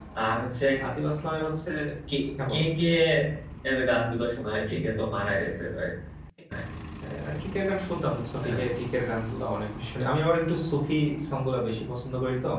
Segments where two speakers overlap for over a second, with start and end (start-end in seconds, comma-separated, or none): none